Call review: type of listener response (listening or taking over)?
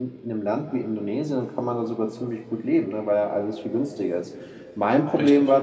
listening